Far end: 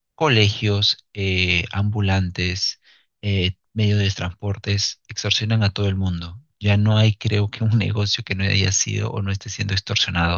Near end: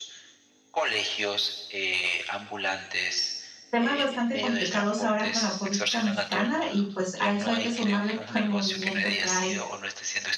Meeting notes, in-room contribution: present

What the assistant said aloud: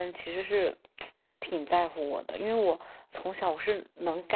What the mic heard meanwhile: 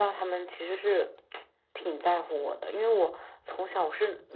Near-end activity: none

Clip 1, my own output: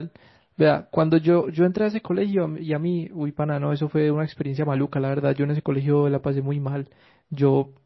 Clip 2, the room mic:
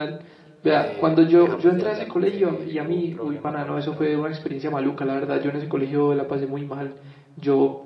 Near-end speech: present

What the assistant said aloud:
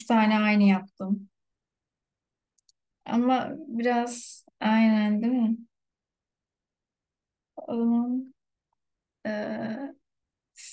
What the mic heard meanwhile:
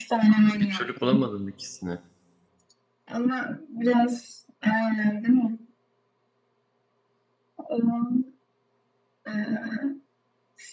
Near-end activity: present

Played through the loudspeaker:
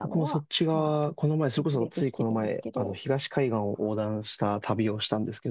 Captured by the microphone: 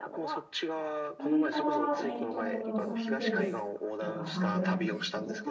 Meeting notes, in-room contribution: present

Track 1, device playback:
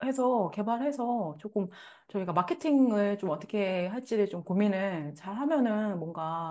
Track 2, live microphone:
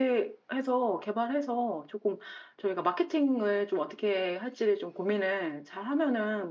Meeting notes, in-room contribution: none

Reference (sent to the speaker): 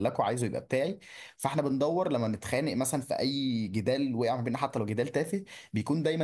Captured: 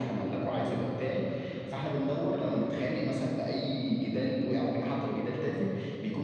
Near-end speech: none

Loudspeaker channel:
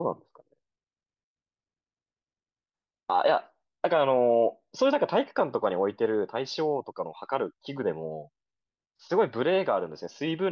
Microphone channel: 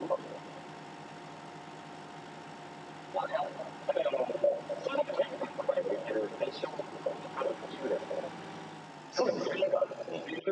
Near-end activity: present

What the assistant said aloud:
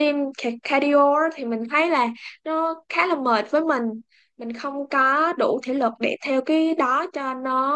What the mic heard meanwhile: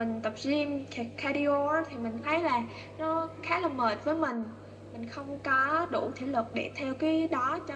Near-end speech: none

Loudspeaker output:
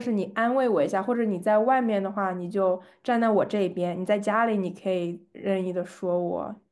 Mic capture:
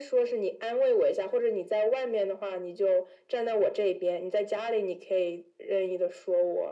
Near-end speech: none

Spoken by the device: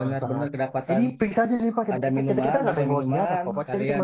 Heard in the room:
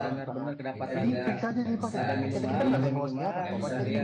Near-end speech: present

